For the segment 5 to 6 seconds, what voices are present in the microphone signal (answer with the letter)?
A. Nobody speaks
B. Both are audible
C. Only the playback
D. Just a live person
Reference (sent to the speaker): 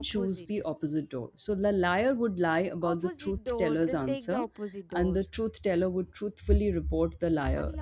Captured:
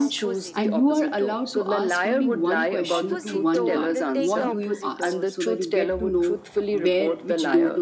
B